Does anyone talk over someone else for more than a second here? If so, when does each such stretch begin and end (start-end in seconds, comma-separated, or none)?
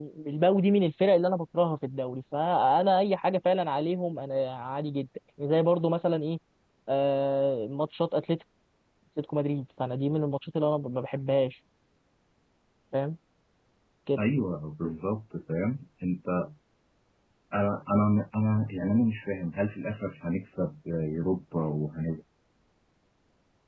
none